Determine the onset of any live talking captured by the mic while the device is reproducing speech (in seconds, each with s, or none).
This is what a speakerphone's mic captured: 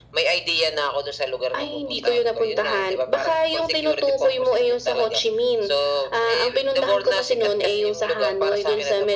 none